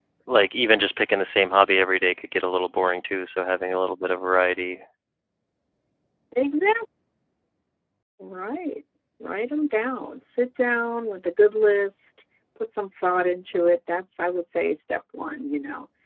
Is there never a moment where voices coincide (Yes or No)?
Yes